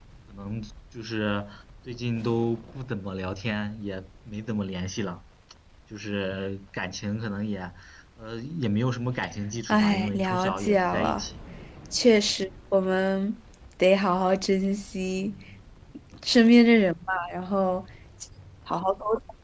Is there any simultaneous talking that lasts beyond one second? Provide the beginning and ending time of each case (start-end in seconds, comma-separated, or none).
9.7-11.2